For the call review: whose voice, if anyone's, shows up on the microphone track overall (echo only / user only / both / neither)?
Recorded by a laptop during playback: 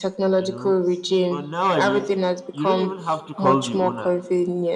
both